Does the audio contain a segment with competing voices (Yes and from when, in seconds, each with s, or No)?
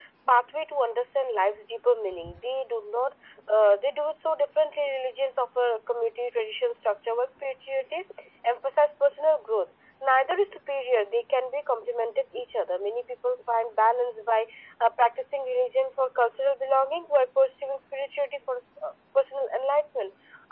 No